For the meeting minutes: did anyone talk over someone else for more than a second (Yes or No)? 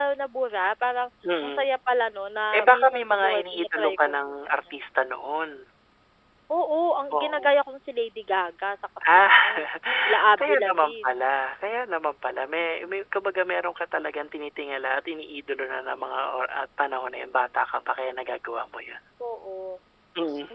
Yes